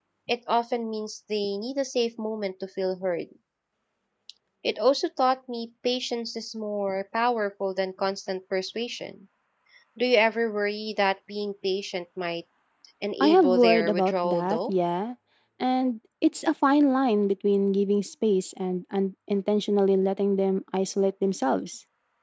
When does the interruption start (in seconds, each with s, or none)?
13.2 s